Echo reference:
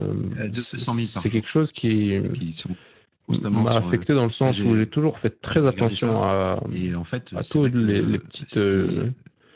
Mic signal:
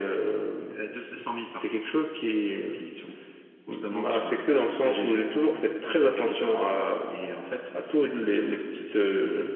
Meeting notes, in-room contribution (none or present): none